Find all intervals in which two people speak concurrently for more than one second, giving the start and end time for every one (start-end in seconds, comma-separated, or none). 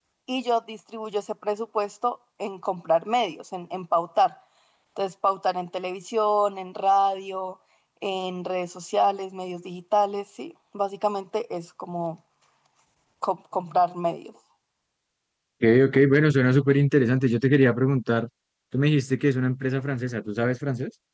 none